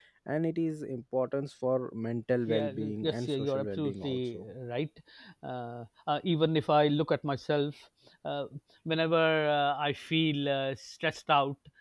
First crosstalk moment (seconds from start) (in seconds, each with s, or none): 2.5 s